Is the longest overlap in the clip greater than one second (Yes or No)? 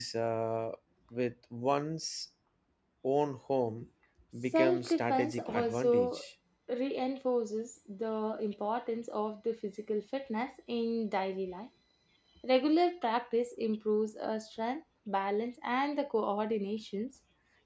Yes